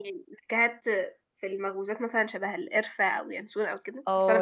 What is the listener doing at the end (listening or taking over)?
taking over